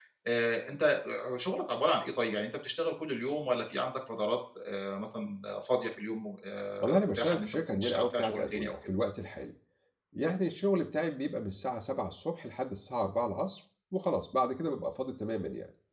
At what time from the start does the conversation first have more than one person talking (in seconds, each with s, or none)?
6.8 s